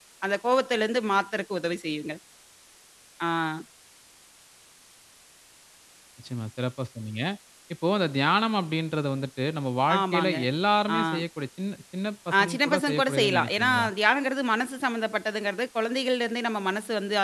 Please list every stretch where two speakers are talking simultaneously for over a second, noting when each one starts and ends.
12.4-13.9

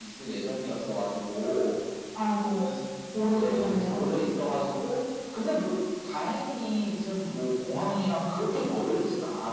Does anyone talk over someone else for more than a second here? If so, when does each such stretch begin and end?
3.3-4.6

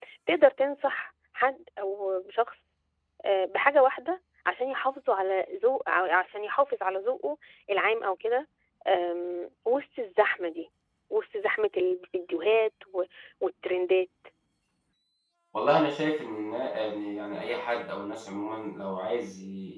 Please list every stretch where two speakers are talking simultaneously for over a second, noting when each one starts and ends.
none

